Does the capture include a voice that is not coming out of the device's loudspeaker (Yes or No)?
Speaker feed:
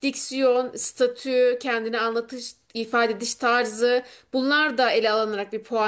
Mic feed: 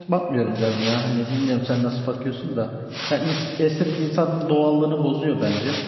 Yes